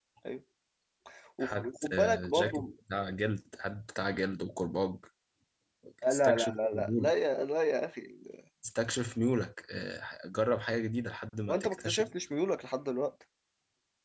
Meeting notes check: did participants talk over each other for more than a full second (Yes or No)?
Yes